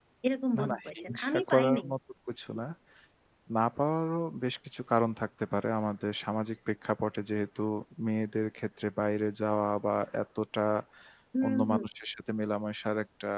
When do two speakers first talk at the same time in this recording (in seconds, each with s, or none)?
0.6 s